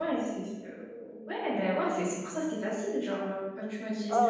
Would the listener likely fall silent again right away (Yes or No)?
No